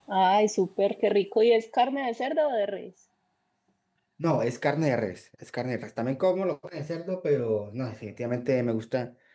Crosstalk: none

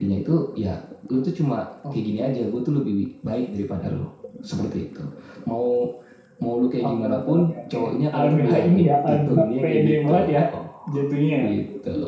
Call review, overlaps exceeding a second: present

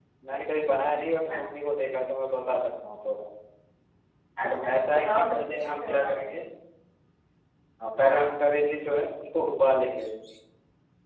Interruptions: present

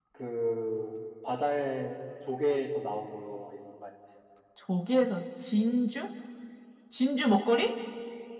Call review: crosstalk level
none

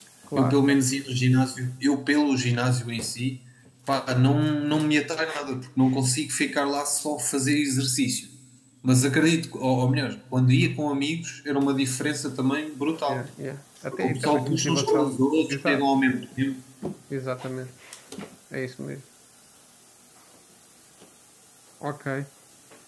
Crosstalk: present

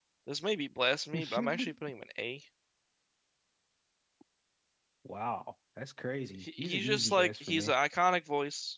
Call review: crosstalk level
present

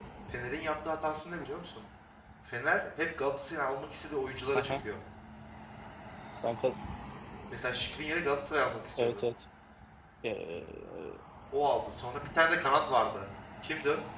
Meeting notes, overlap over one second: none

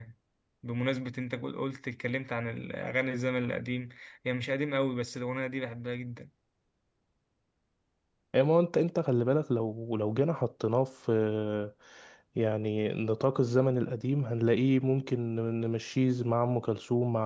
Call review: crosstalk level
none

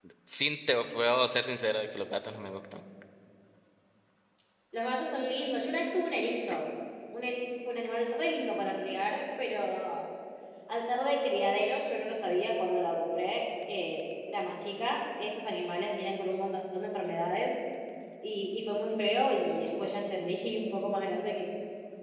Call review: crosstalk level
none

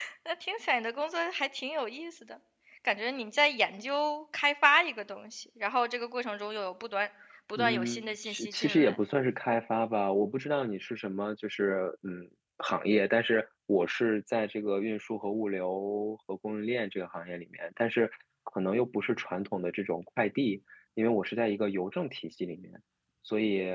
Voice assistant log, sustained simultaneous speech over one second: present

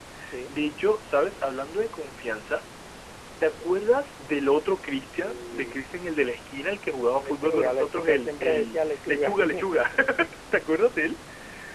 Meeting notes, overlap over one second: present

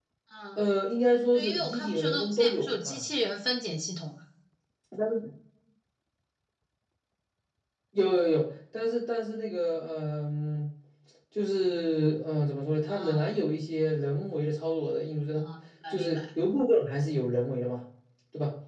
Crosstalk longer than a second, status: present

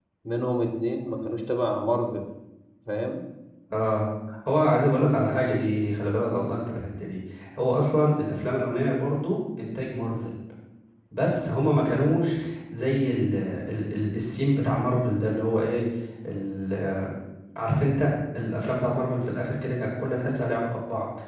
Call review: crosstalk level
none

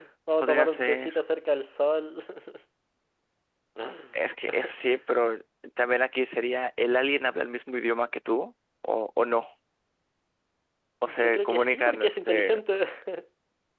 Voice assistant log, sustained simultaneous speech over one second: present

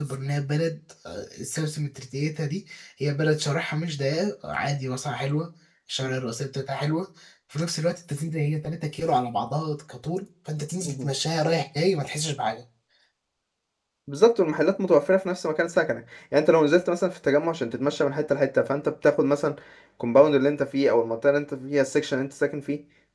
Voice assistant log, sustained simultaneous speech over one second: none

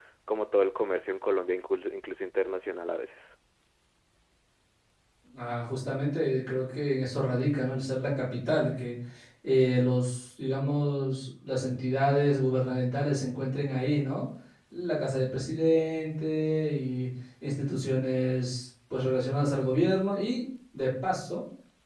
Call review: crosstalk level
none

